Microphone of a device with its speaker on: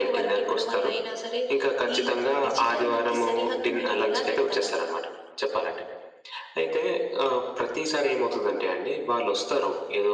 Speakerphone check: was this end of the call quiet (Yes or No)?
Yes